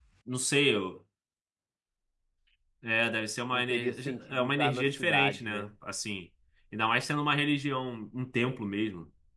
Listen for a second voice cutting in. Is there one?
Yes, from 3.5 s

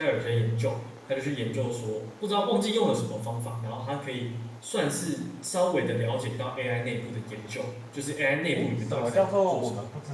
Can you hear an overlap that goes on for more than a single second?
Yes, from 8.5 s

